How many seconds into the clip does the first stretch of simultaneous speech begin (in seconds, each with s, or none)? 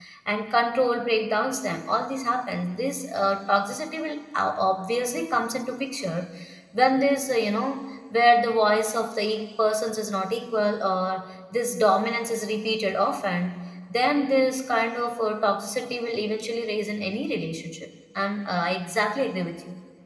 none